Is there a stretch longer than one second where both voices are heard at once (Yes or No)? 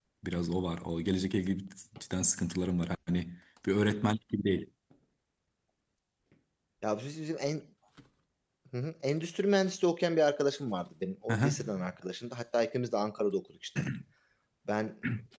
No